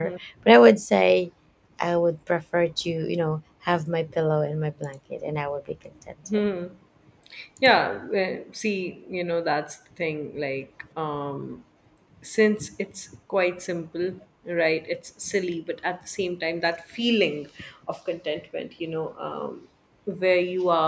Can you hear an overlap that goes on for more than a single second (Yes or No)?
No